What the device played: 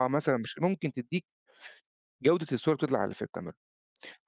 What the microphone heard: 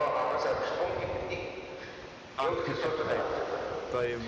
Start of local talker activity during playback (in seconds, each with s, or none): 2.4 s